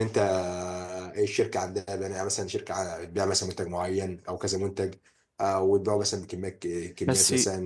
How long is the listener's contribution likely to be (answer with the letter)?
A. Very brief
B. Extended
B